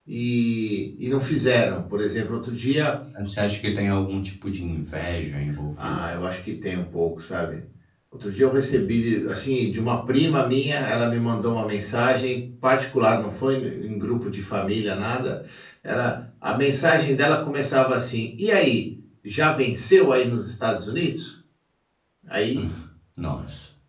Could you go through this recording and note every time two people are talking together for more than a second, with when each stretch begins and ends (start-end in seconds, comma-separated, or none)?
none